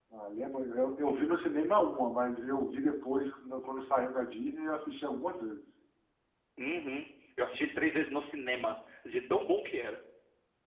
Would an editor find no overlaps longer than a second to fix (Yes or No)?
Yes